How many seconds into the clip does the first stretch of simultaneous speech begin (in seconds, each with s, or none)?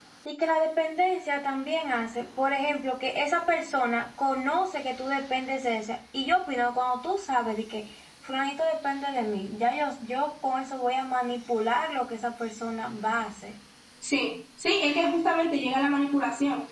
none